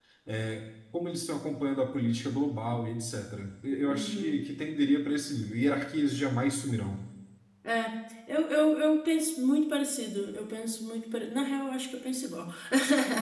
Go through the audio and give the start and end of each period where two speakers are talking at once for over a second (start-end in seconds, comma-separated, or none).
none